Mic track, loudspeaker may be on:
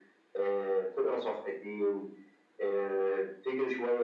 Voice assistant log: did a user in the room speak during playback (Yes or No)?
No